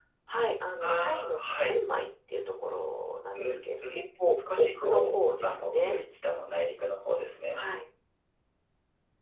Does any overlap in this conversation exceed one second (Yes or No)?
Yes